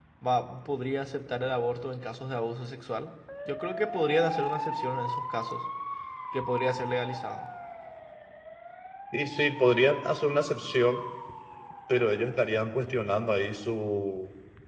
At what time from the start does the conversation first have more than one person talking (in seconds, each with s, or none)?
none